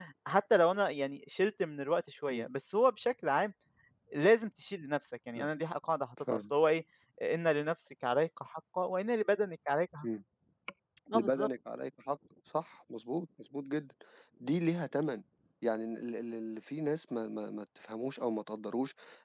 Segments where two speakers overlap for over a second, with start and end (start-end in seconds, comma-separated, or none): none